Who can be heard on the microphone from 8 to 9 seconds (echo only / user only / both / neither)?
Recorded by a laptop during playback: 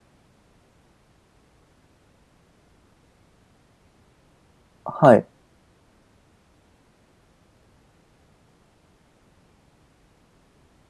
neither